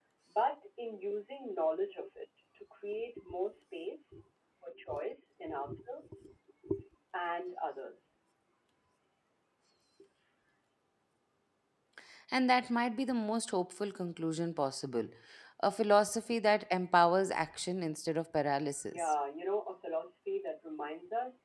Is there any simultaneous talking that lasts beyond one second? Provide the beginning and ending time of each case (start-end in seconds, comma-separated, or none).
none